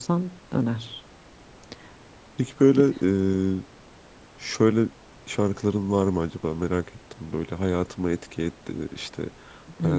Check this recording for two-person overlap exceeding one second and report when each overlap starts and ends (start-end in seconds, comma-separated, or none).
none